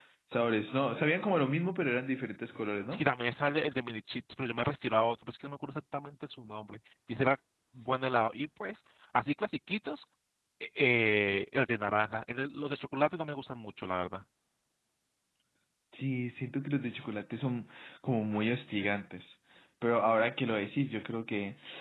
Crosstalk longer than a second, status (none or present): none